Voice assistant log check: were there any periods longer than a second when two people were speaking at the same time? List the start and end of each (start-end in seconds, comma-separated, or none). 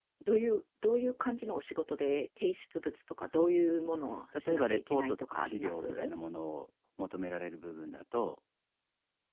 4.4-6.1